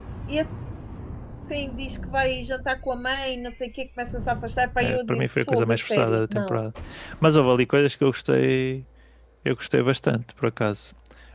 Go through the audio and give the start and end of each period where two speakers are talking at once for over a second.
4.8-6.6

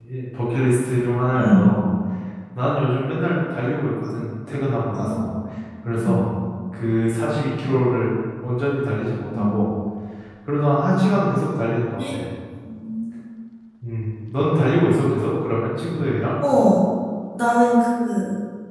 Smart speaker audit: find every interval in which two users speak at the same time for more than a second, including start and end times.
none

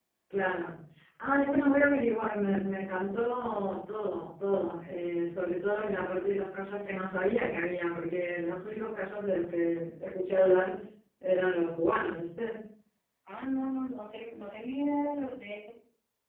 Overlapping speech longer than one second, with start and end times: none

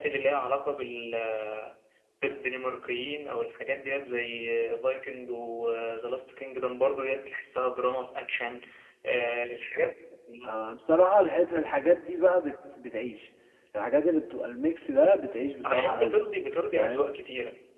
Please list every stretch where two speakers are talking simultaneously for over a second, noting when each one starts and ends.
none

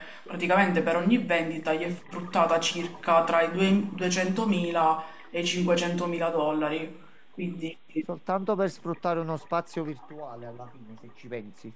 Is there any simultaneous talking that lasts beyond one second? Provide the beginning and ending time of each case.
none

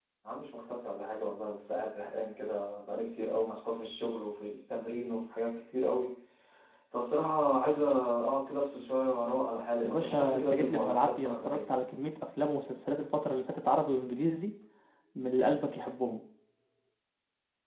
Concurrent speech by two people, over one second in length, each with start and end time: 9.8-11.6

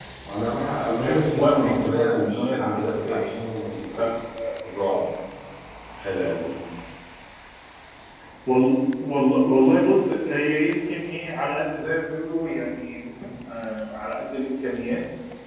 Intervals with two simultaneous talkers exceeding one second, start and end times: 0.8-3.3

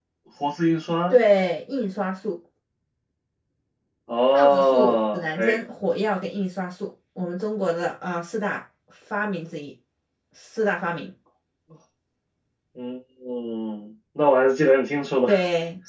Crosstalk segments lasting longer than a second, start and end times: 4.3-5.6

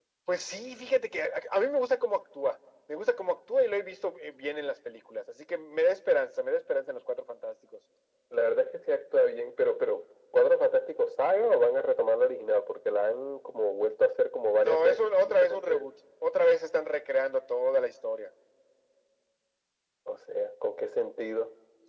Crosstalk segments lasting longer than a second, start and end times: 14.6-15.9

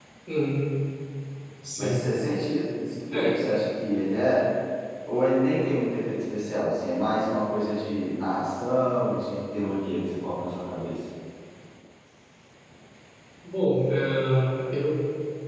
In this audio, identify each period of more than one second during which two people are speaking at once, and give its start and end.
none

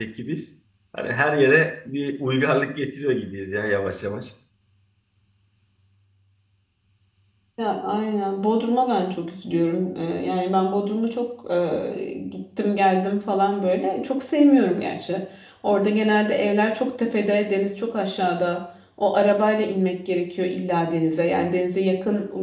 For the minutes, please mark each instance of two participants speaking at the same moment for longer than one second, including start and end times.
none

